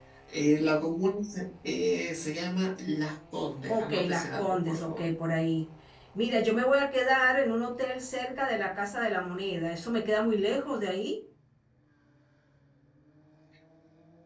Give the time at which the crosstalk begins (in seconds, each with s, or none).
3.7 s